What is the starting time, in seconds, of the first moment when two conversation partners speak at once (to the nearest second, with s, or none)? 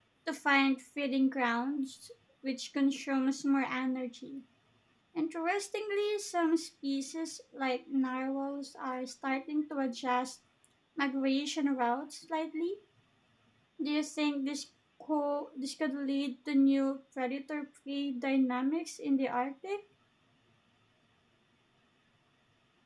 none